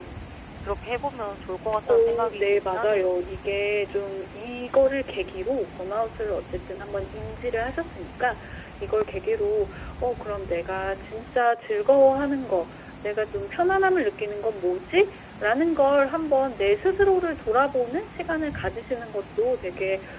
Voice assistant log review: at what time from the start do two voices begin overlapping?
2 s

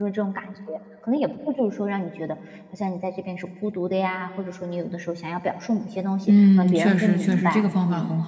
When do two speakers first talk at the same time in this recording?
6 s

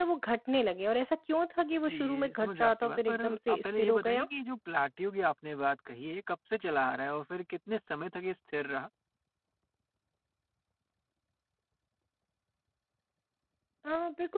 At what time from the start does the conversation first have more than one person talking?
2 s

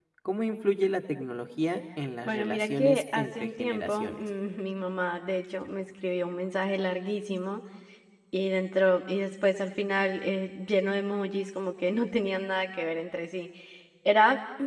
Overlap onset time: 2 s

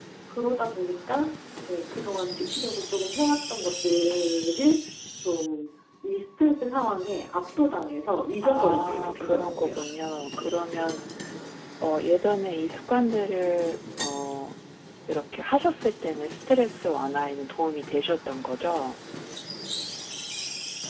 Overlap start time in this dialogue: 8 s

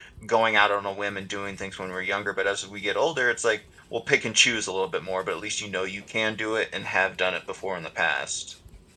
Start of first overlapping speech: none

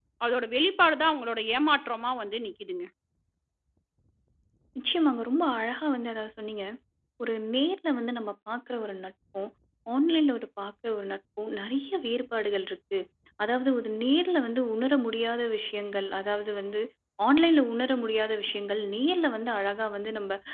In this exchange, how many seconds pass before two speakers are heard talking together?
none

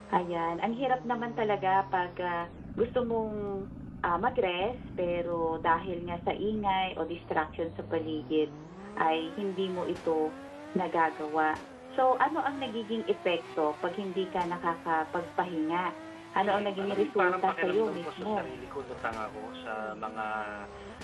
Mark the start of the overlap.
16 s

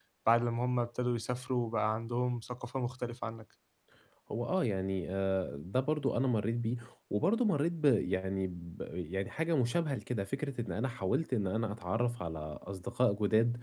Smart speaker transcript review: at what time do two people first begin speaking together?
none

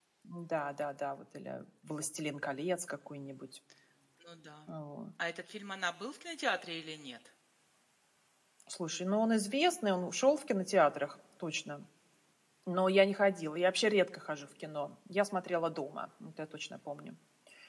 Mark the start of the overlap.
none

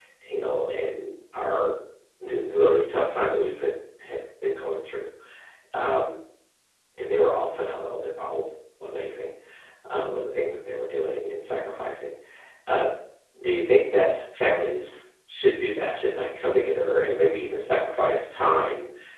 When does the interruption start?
none

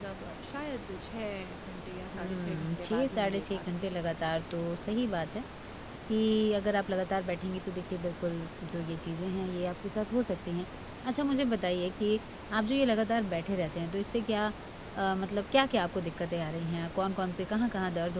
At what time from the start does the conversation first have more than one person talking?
2 s

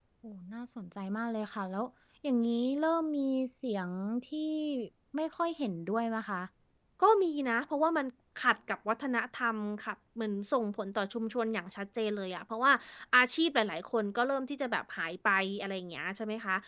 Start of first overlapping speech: none

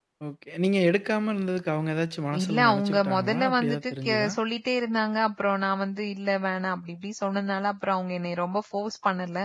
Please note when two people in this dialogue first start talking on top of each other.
2 s

